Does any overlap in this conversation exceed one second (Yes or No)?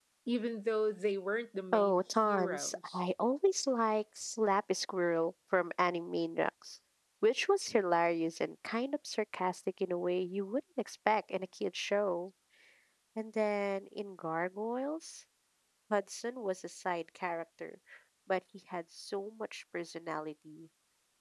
Yes